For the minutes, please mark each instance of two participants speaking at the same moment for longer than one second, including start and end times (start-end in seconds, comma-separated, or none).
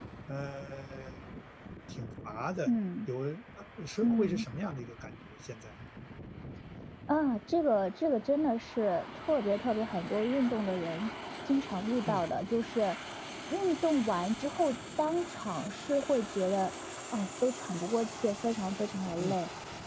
none